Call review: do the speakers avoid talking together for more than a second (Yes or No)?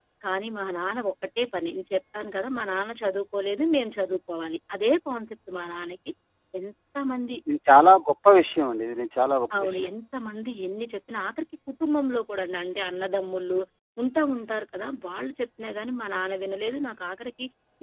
Yes